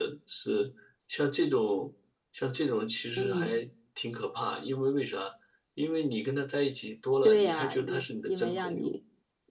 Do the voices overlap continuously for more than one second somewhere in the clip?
Yes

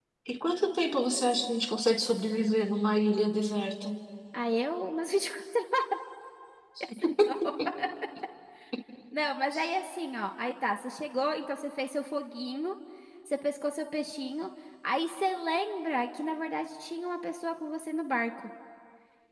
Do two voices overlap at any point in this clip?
No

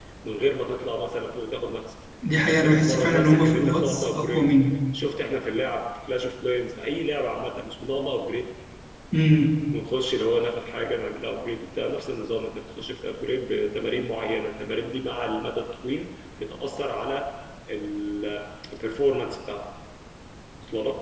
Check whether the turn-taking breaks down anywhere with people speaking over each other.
Yes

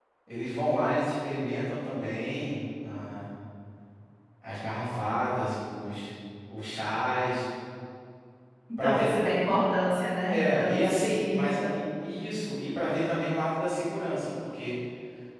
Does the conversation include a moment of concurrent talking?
Yes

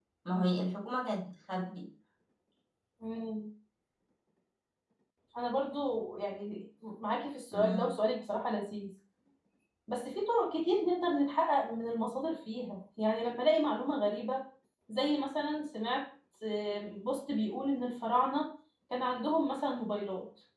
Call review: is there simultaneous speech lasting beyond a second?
No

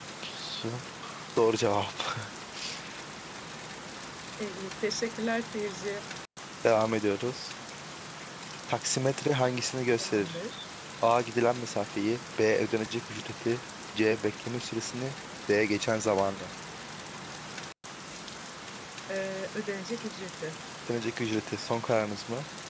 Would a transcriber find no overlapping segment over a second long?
Yes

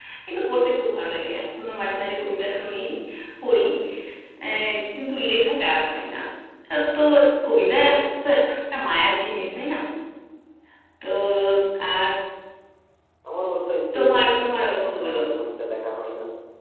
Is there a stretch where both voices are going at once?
Yes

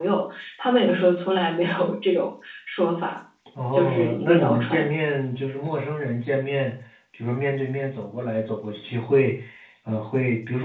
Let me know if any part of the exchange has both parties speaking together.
Yes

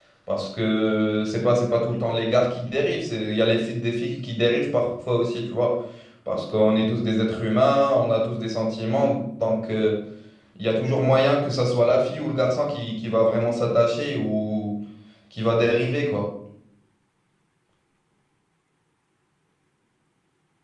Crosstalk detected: No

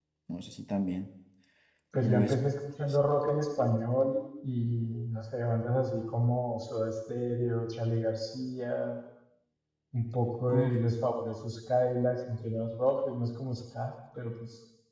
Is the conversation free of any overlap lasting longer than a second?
Yes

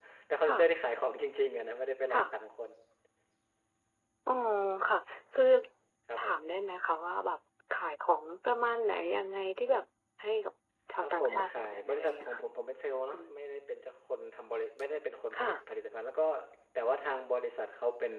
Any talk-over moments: Yes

